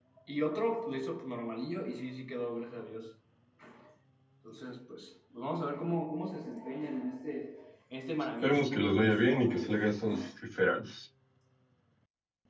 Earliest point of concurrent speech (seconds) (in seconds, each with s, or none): 8.4 s